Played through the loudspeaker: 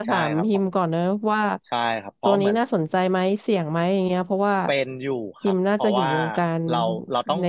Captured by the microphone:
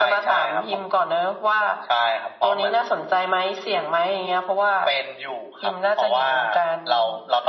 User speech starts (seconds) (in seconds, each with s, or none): none